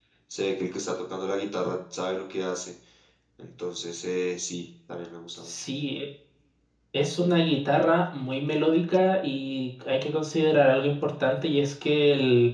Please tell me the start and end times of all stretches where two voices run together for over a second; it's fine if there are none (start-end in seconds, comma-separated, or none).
none